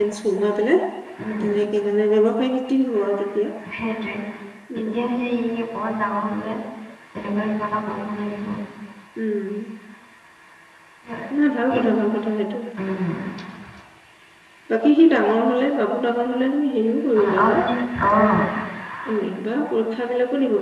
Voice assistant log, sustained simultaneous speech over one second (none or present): none